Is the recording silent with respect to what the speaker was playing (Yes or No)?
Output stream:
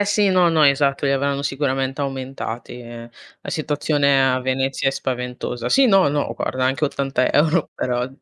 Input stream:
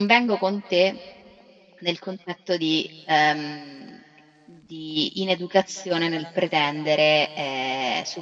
Yes